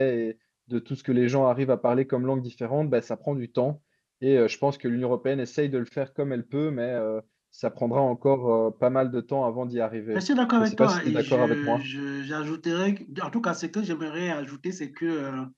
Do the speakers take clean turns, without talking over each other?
No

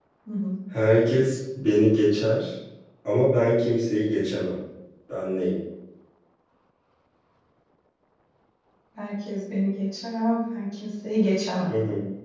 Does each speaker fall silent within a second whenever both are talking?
Yes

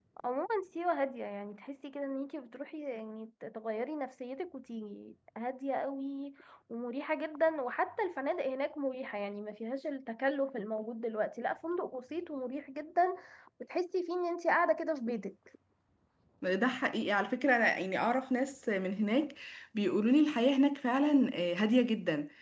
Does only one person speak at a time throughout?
Yes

